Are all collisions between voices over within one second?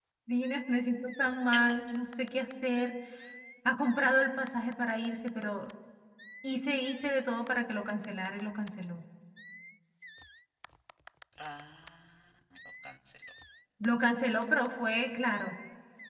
Yes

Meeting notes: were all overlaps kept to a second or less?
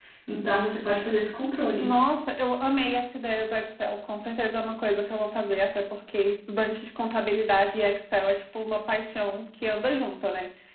Yes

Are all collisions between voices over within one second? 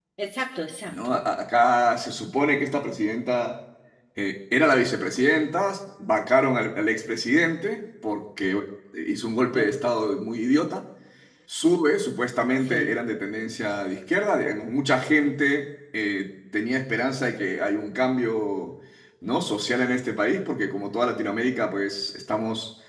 Yes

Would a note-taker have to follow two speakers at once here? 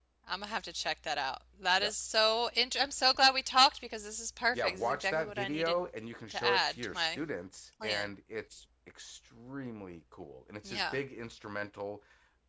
Yes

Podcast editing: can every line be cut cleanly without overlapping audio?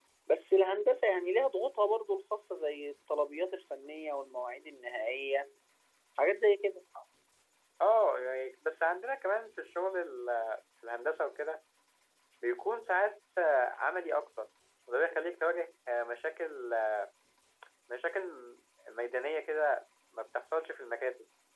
Yes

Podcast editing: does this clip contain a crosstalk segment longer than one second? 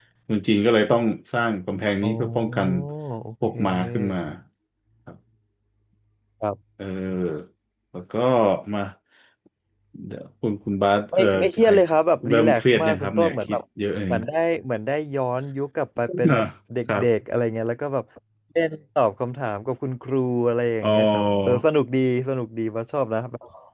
Yes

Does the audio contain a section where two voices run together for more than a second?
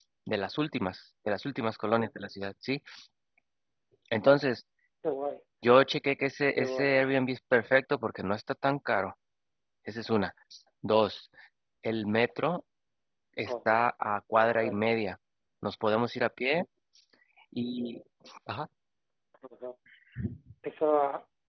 No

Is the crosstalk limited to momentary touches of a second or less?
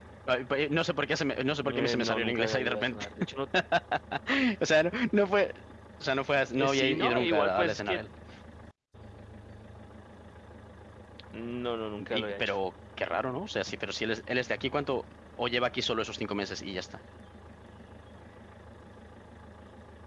No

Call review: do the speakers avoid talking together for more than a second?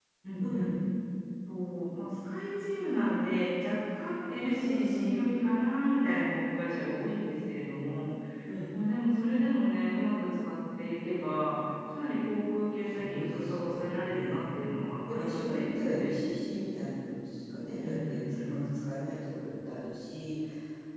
No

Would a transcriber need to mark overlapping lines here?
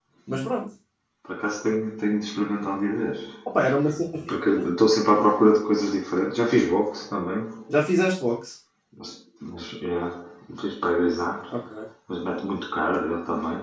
No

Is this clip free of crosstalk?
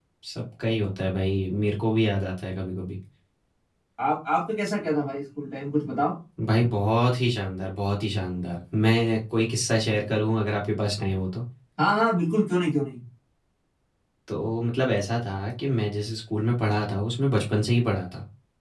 Yes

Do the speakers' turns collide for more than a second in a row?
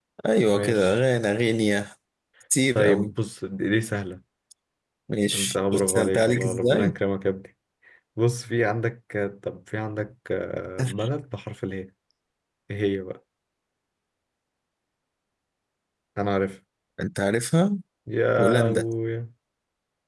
Yes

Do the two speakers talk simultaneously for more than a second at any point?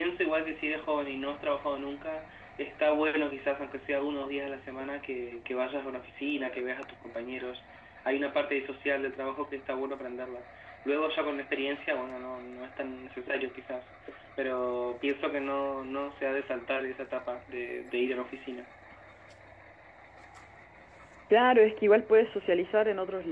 No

